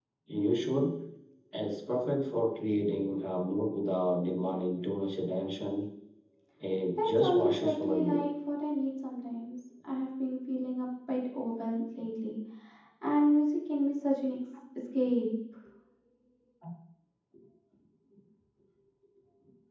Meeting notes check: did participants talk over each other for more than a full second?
Yes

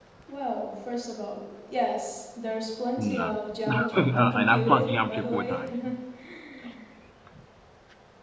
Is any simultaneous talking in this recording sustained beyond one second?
Yes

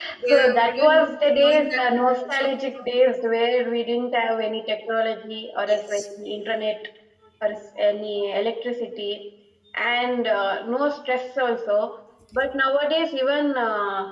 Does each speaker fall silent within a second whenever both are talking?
No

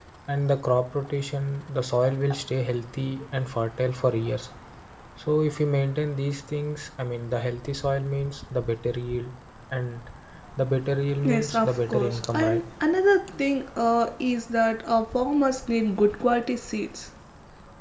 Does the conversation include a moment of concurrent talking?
Yes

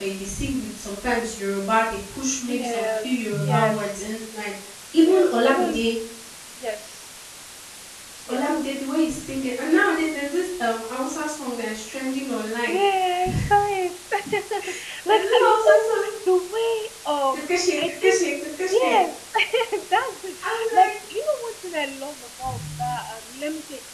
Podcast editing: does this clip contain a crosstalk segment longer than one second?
Yes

